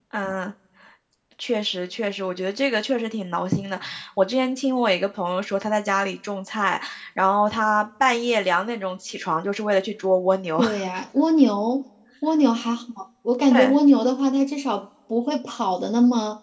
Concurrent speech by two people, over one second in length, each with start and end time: none

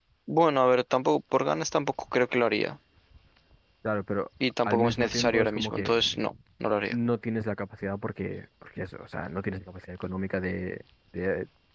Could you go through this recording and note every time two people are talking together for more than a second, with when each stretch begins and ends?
4.7-5.9

